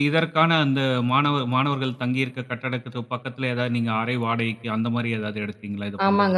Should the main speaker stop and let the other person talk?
Yes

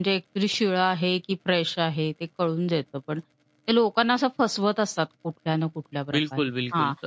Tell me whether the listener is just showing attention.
No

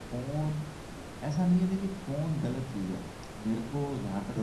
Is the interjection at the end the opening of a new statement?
No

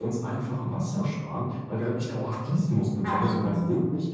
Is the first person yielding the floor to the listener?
No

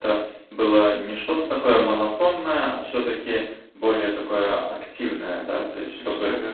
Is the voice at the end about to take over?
No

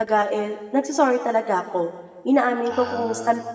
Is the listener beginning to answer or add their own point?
No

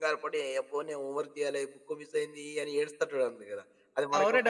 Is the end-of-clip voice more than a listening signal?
Yes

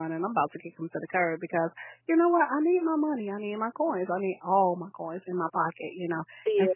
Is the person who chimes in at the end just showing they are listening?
Yes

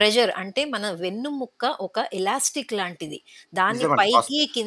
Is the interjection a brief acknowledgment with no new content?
Yes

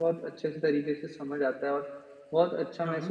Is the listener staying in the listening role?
Yes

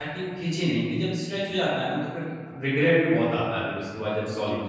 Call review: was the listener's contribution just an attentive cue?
No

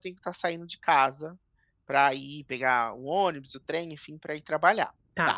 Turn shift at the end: No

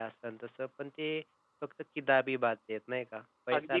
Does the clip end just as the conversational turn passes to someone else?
Yes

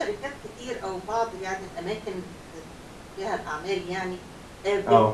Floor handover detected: No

